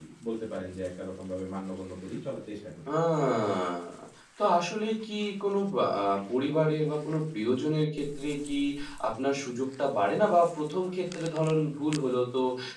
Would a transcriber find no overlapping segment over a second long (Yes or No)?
Yes